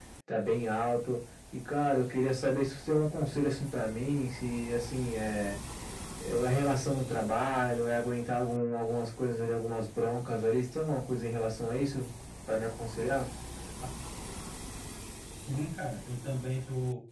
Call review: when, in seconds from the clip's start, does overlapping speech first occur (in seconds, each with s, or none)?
none